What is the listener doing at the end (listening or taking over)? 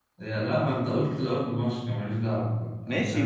taking over